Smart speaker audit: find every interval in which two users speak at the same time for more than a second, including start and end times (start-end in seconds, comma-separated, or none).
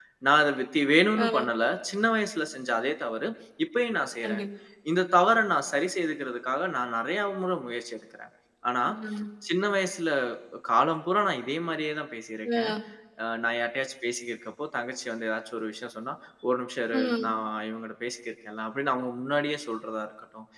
none